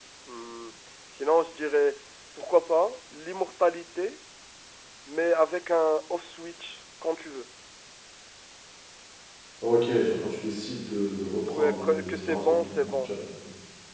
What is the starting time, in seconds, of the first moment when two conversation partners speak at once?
11.5 s

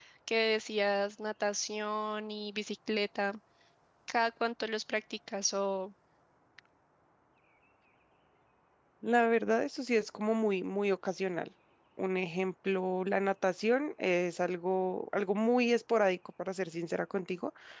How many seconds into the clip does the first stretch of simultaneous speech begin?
none

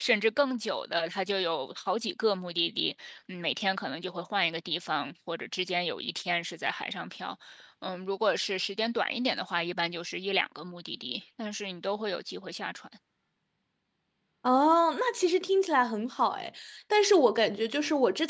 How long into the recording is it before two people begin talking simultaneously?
none

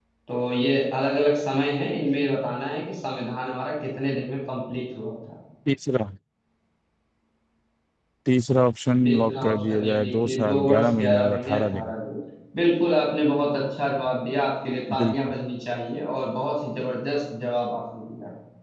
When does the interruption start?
9.1 s

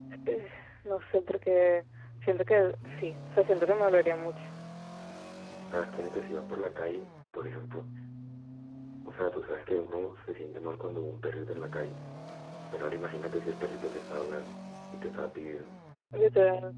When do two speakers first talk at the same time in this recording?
none

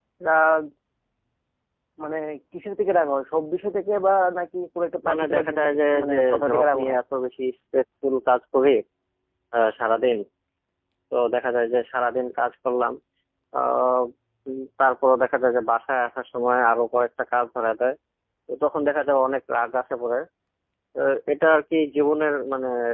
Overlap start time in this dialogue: 5.0 s

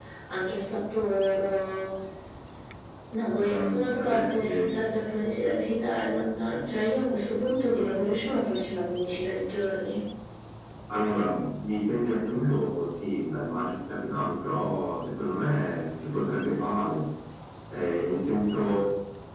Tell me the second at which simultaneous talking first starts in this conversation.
3.4 s

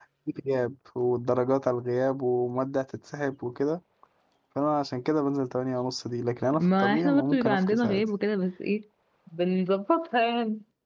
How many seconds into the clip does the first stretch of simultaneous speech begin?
6.5 s

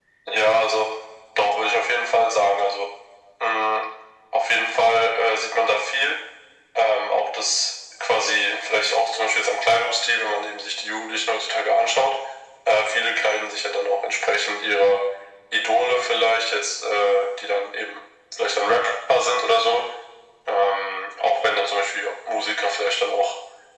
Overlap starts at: none

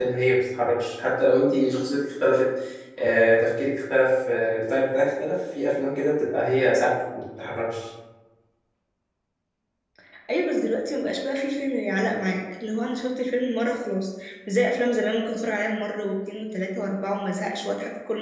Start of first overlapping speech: none

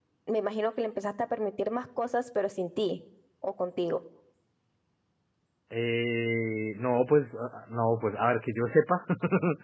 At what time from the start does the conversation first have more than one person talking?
none

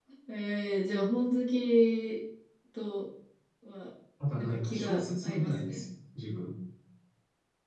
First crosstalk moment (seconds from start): 4.3 s

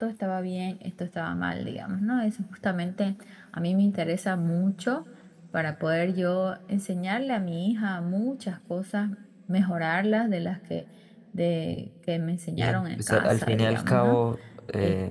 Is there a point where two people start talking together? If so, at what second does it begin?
12.6 s

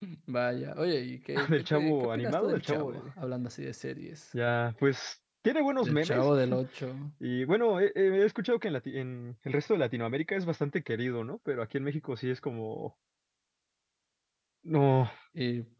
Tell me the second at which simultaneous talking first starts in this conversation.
1.5 s

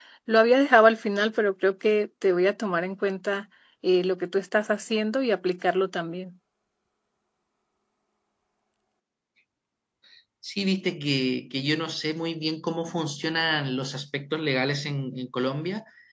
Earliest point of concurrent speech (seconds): none

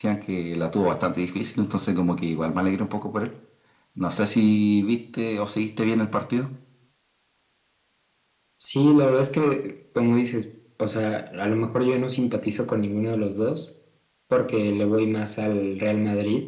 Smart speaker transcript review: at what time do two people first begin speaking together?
none

